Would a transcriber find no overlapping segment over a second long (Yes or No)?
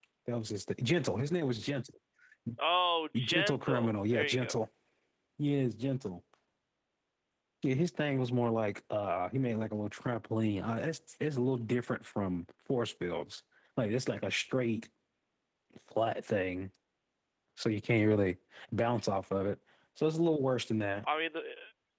No